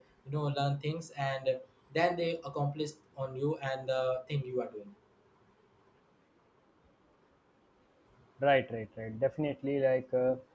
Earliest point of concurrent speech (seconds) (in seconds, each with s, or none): none